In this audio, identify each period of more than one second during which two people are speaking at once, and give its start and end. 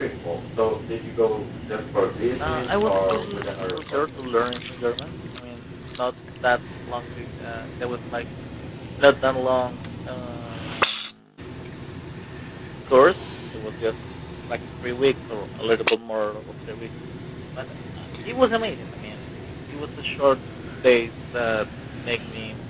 2.4-4.2

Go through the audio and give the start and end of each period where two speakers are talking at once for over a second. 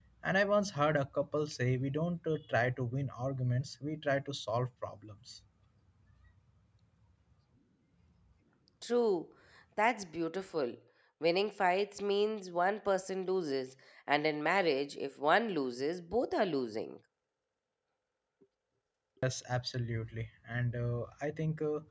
none

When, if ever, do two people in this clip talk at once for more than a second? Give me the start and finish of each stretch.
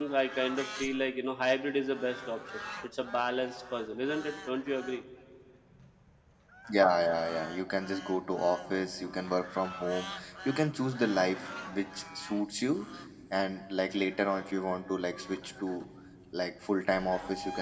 none

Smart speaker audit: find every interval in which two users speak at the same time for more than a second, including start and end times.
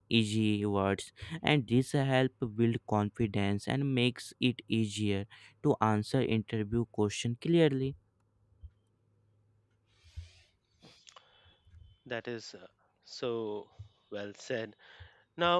none

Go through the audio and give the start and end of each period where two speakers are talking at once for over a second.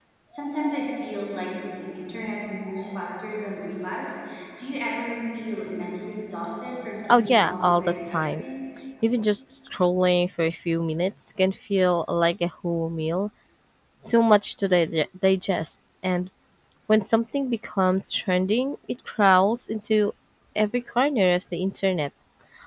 7.1-8.4

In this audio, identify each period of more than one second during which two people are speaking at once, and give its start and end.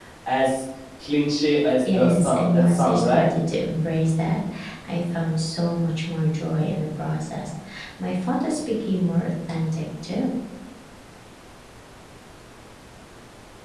1.9-3.3

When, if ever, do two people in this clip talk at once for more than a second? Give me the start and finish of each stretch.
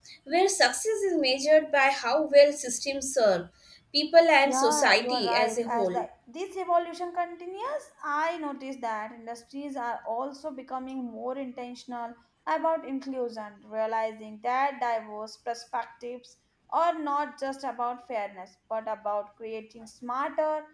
4.4-6.0

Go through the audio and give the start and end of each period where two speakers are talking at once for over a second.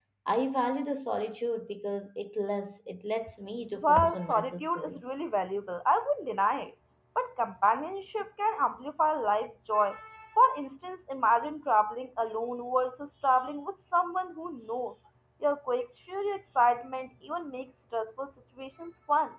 3.8-5.0

